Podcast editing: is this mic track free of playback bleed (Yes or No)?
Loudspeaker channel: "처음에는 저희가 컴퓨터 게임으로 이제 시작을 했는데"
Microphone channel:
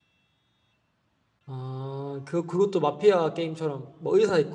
Yes